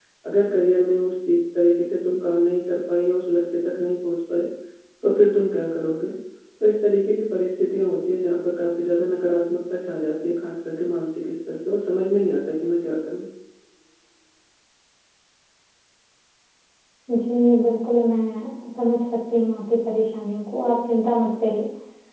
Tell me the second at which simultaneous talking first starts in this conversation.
none

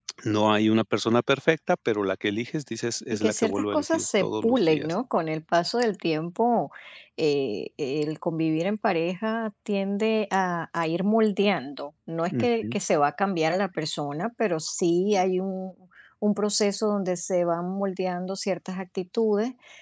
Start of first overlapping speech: 3.1 s

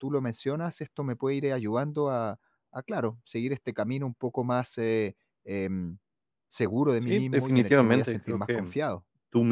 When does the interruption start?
7.1 s

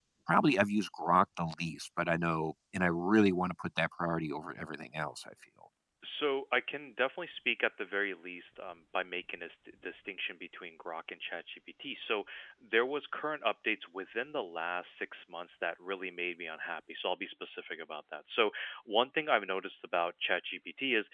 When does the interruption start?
none

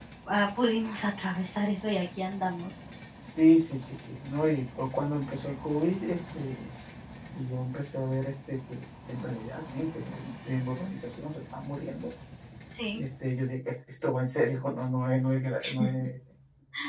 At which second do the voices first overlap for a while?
none

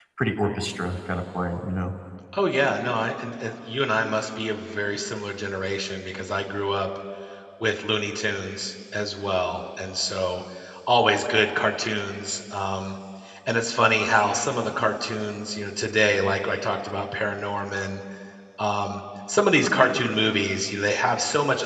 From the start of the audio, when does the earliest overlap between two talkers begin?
none

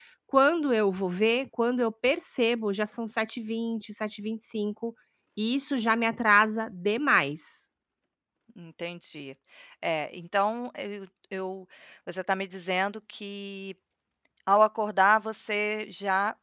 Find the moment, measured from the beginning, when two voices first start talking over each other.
none

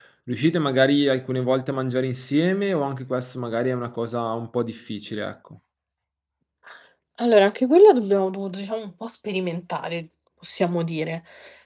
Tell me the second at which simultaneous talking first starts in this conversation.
none

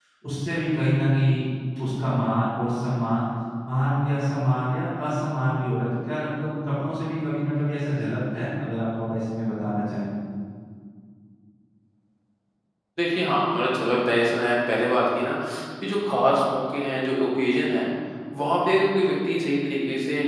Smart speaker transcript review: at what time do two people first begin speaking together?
none

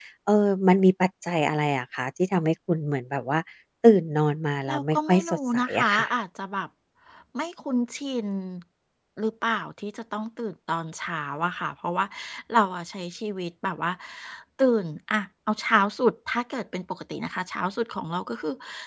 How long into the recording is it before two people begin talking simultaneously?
4.7 s

